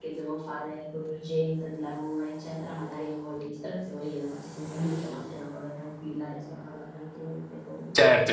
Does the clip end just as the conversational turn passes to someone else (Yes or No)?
Yes